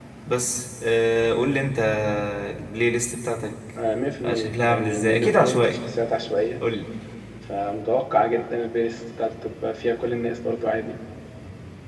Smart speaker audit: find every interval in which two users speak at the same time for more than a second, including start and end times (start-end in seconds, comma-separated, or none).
4.3-5.8